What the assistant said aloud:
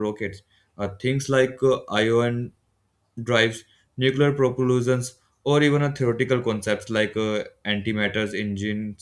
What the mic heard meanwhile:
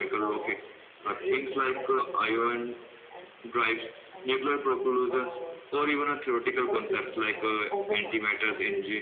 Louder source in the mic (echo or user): echo